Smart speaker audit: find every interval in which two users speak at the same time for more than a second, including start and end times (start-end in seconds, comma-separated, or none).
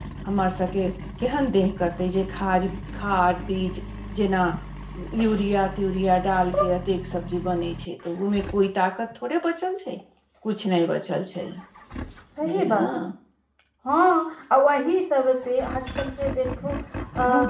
none